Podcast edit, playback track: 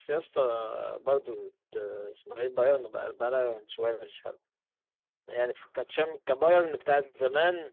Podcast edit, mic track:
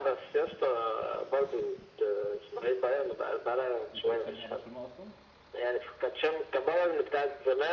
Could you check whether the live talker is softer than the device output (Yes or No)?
Yes